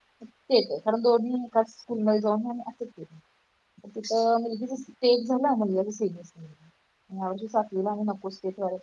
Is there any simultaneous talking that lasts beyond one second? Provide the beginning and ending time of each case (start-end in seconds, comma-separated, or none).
none